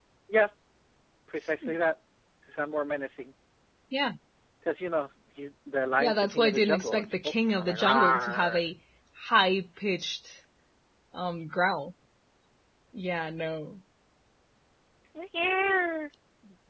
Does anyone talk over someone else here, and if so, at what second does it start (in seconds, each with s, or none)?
6.0 s